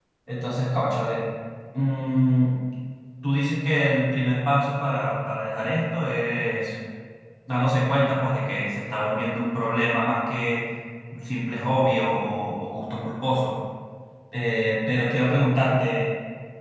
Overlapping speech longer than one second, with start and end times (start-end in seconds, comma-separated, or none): none